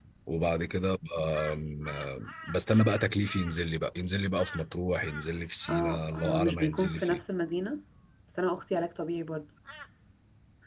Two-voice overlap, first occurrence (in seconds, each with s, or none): 5.7 s